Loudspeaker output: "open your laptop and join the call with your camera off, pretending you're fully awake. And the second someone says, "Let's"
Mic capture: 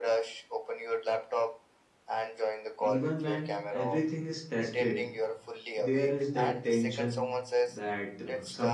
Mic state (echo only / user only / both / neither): both